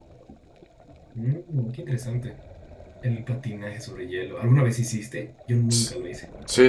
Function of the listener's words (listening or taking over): taking over